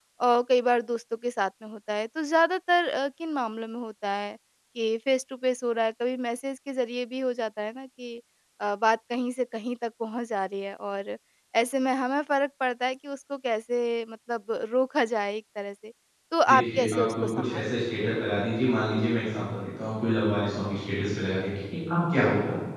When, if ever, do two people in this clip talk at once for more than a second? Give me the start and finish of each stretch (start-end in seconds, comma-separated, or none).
16.5-17.7